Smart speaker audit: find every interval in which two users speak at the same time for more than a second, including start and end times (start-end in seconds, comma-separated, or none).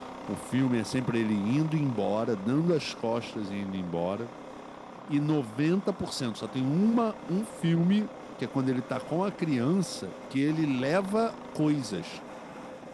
none